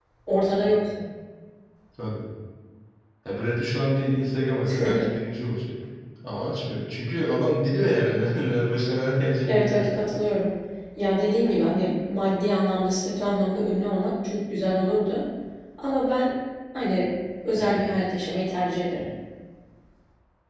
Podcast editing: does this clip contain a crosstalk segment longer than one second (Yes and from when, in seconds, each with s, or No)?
No